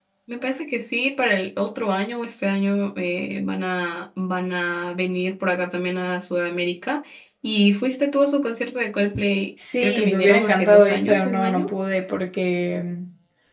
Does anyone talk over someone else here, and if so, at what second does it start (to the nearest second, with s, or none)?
10 s